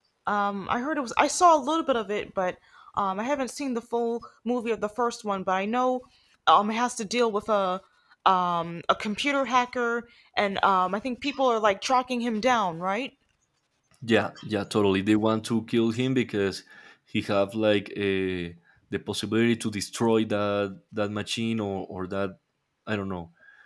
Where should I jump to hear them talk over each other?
none

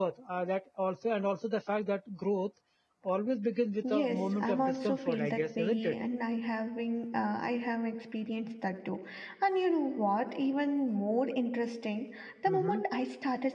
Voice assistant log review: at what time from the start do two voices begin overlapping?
3.9 s

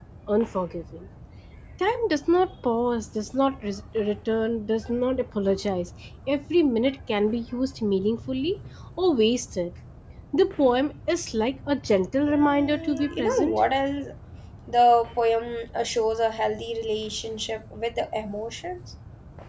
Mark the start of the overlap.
12.3 s

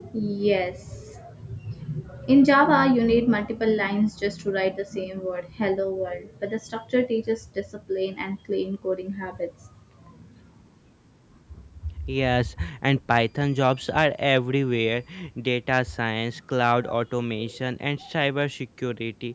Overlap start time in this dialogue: none

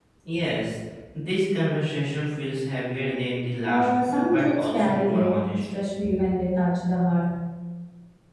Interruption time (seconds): 3.6 s

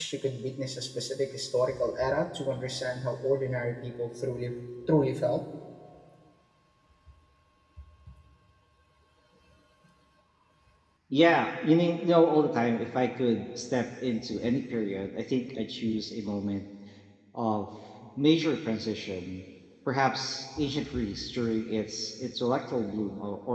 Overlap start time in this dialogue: none

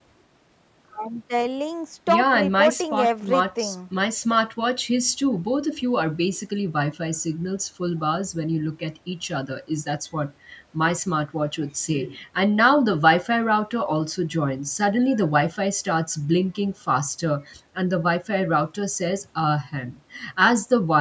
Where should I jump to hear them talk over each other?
2.1 s

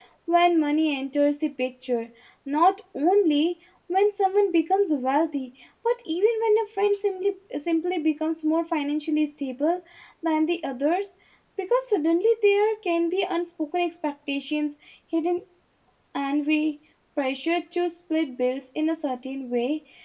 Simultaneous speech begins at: none

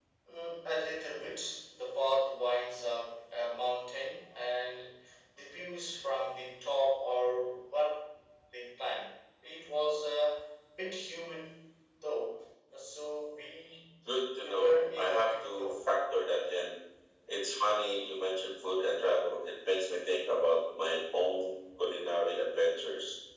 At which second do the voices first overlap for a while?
14.4 s

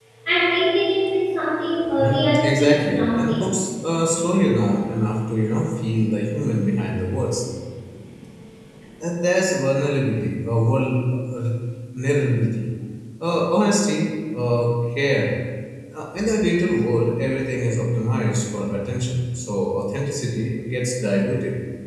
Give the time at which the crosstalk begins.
1.8 s

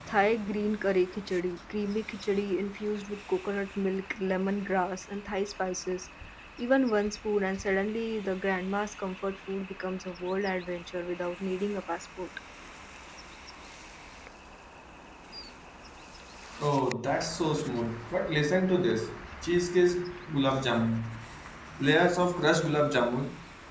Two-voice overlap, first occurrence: none

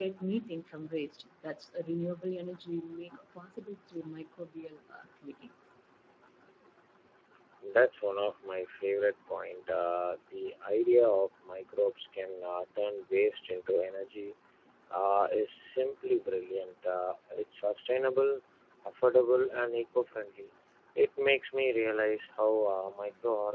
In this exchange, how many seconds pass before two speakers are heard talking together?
none

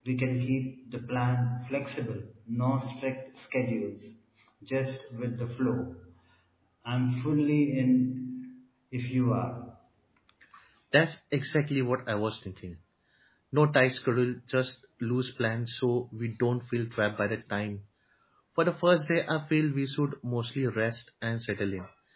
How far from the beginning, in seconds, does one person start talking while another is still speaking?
none

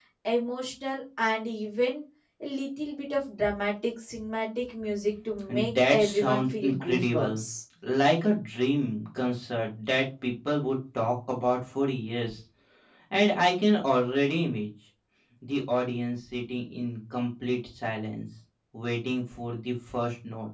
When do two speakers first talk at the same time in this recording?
5.5 s

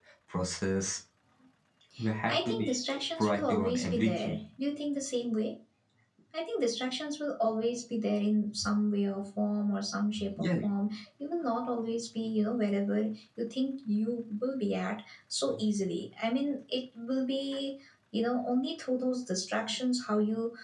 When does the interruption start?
2.3 s

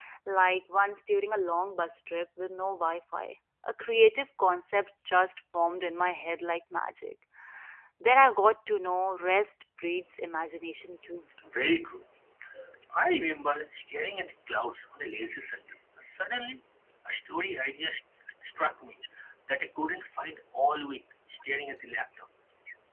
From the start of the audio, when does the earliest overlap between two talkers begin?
none

